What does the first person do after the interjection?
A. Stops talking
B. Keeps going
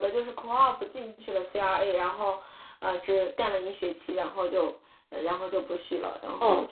A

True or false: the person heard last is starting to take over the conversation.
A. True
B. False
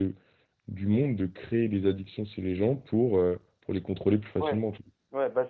A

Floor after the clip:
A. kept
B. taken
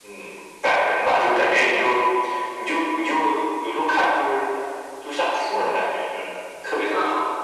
B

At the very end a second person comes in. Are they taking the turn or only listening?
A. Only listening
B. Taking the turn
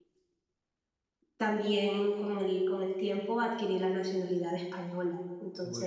A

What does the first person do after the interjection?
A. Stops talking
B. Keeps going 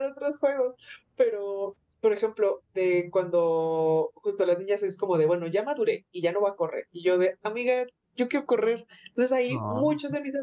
B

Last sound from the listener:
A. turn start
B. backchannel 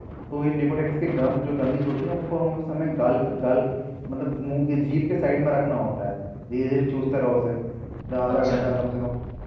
B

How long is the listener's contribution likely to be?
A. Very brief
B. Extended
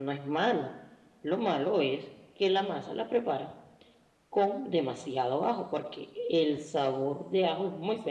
B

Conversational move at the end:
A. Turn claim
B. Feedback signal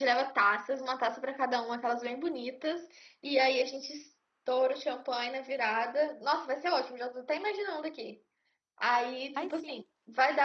B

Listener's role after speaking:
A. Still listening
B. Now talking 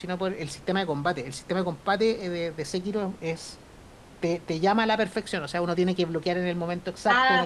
A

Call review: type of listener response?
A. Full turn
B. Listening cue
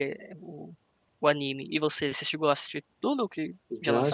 A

